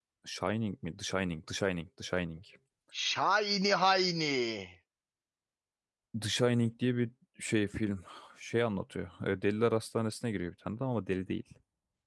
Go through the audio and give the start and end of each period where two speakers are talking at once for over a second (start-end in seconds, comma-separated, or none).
none